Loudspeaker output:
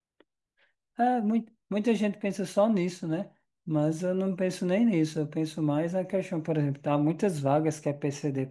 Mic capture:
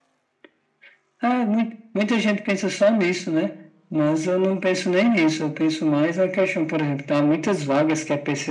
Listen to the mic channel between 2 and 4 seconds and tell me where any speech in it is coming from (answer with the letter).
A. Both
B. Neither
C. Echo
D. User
C